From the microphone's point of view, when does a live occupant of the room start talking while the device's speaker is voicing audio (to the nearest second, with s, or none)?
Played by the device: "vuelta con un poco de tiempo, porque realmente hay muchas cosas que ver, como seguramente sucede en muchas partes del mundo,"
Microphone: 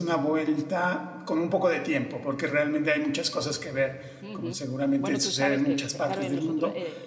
4 s